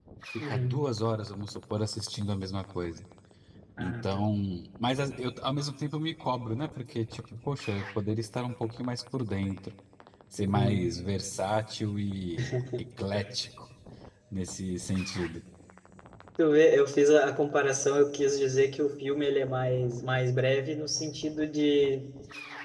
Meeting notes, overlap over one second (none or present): none